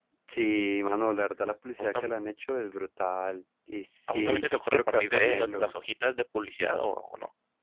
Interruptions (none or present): present